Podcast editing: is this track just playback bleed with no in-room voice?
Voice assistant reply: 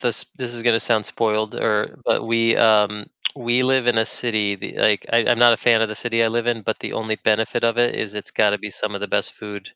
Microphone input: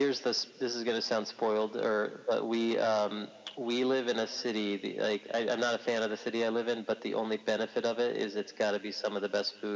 Yes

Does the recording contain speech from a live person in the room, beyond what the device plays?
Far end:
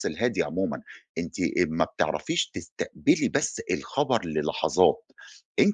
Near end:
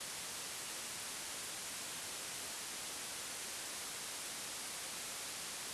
No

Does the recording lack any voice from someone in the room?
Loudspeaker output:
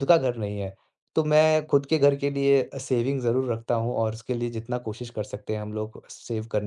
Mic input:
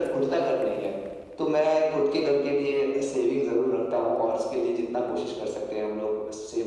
Yes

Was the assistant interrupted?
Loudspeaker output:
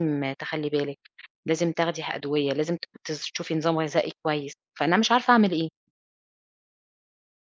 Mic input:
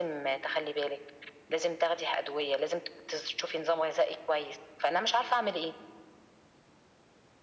No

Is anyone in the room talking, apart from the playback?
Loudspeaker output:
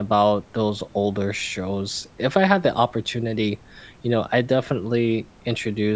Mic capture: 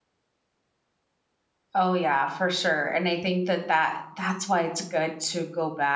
Yes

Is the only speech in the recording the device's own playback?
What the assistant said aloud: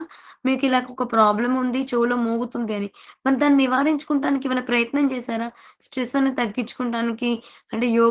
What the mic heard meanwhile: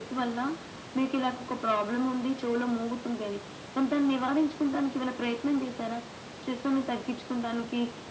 Yes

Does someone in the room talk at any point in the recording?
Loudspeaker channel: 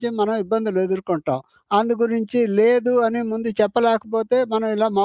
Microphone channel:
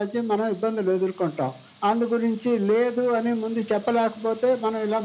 No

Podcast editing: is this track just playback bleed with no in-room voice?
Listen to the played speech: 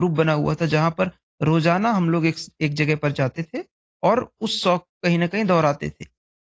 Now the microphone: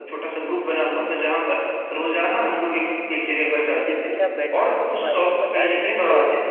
No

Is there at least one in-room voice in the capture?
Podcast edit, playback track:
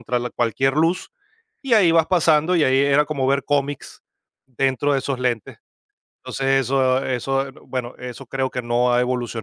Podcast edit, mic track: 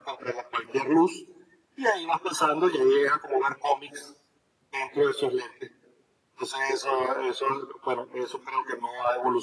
No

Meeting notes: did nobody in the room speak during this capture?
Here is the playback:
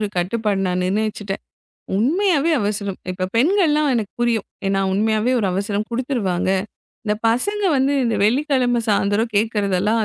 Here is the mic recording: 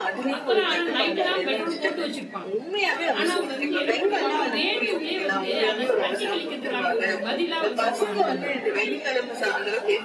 No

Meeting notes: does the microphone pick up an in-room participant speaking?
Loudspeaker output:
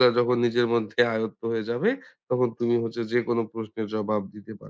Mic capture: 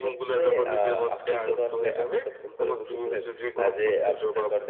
Yes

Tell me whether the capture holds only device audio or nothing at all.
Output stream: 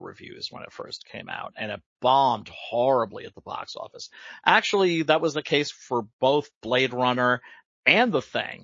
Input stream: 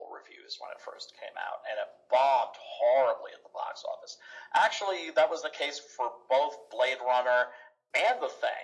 Yes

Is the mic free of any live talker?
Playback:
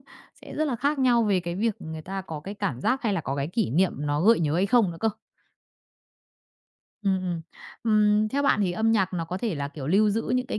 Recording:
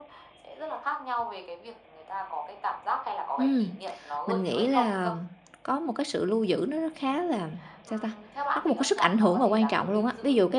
No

